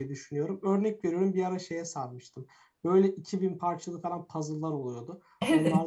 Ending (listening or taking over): listening